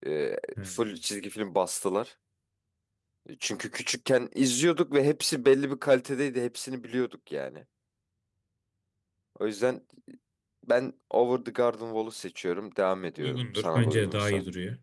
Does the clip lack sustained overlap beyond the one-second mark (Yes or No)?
No